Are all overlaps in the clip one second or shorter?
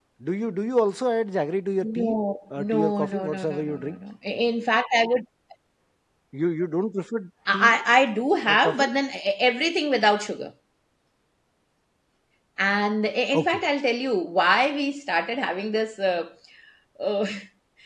No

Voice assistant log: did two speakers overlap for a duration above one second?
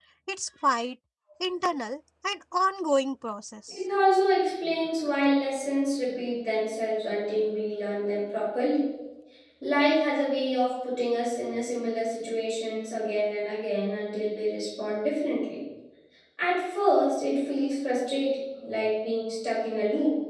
No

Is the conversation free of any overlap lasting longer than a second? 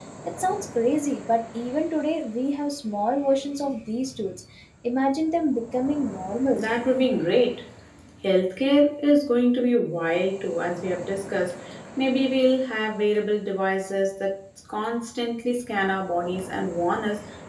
Yes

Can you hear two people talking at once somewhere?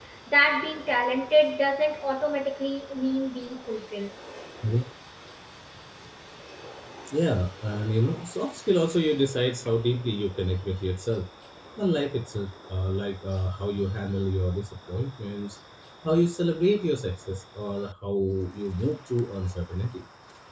No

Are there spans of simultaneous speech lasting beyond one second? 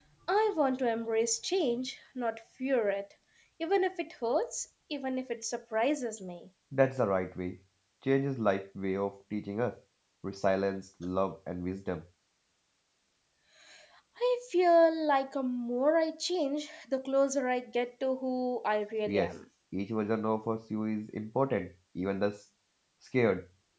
No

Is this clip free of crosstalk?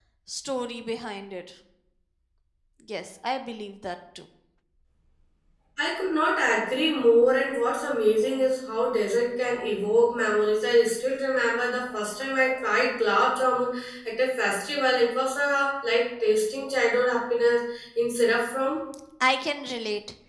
Yes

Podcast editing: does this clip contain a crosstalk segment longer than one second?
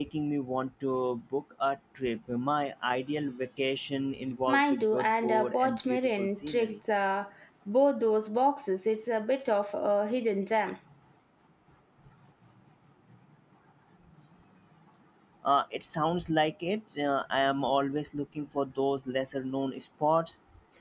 Yes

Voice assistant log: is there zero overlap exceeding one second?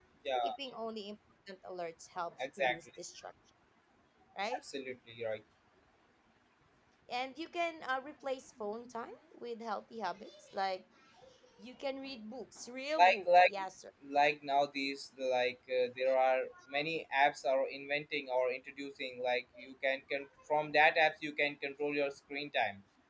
Yes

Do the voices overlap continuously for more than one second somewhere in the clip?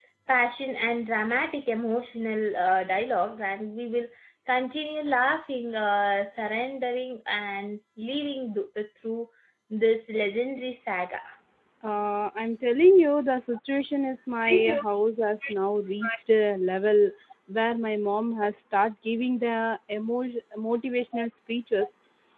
No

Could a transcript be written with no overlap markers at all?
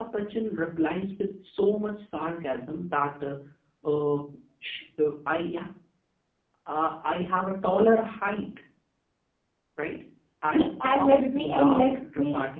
No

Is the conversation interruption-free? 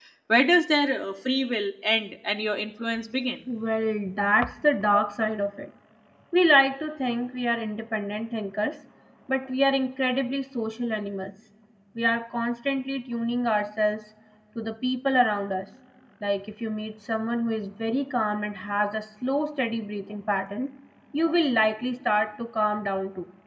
Yes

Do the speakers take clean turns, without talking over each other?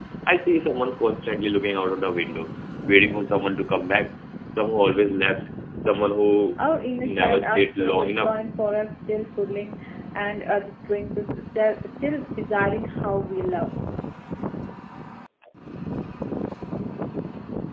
No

